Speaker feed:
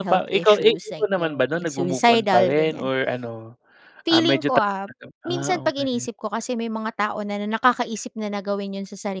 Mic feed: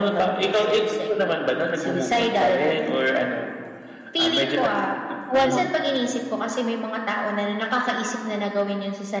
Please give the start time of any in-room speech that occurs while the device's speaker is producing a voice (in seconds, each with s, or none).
5.3 s